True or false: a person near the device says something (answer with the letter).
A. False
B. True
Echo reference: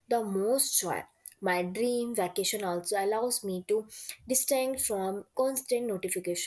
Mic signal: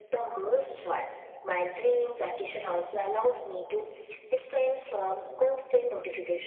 A